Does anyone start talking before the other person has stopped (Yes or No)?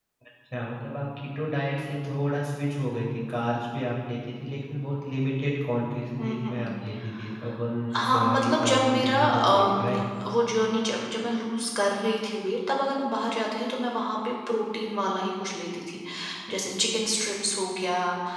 Yes